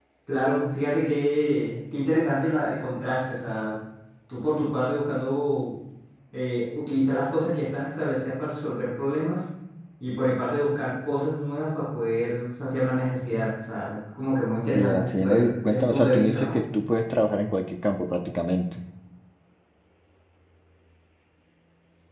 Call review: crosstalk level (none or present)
present